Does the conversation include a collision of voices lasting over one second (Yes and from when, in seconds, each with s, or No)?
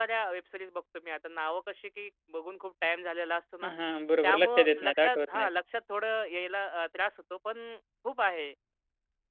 Yes, from 4.2 s